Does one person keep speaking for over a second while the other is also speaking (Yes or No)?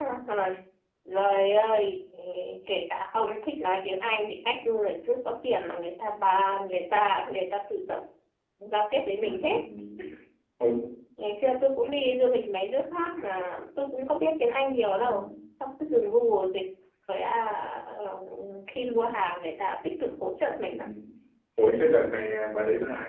No